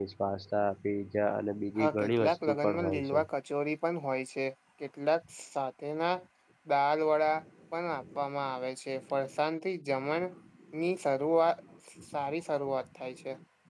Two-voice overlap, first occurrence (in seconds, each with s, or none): 1.8 s